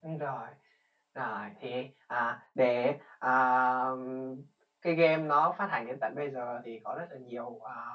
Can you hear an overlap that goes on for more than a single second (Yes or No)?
No